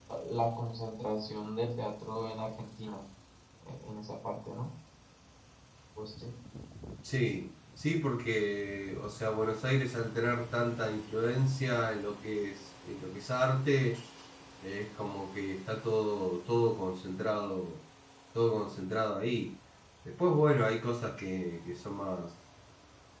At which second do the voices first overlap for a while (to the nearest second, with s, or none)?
none